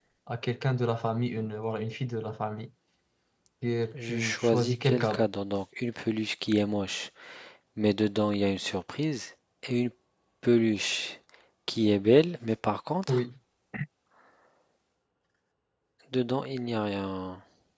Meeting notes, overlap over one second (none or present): present